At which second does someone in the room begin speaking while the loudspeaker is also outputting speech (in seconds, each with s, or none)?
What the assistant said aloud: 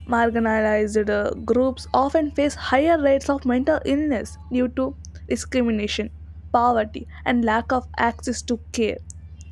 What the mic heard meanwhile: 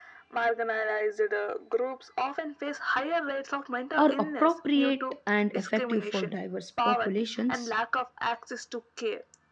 4.0 s